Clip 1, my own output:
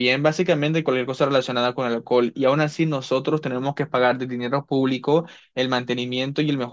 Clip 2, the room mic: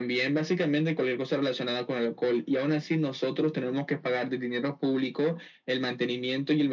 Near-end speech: none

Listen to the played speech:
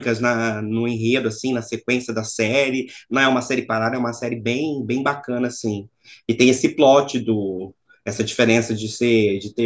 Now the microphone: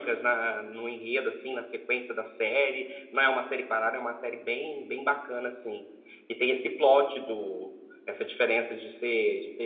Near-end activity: none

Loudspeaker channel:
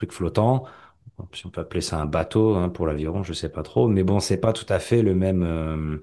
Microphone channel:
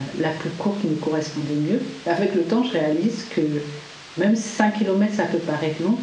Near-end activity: present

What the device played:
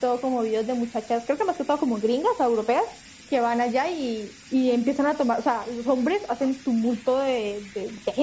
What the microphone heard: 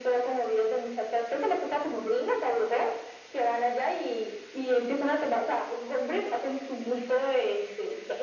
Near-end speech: none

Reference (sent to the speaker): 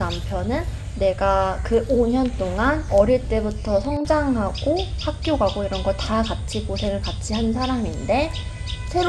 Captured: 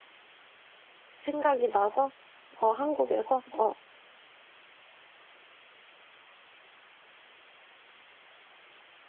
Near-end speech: present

